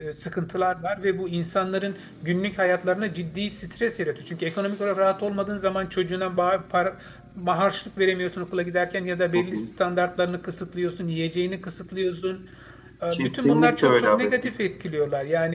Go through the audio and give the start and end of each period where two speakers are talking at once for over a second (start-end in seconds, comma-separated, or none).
13.1-14.3